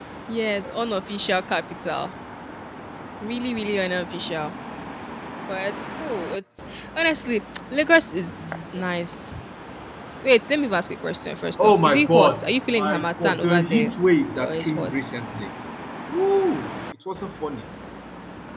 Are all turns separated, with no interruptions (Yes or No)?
No